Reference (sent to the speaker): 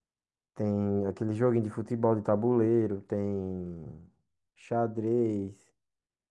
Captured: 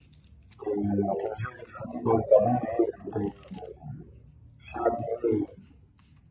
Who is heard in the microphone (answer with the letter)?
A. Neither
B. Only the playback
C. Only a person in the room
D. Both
B